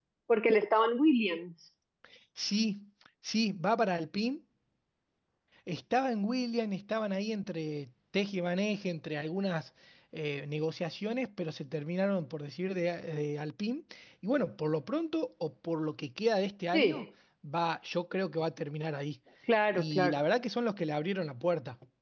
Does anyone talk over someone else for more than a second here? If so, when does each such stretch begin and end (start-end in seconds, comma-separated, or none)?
none